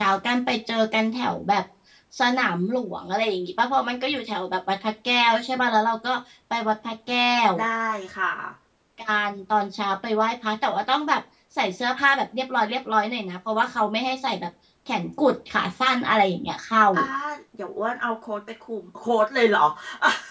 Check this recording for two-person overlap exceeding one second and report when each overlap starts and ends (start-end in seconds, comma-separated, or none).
none